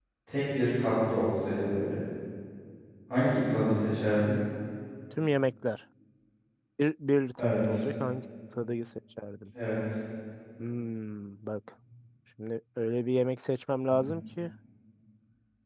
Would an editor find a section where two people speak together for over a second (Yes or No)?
No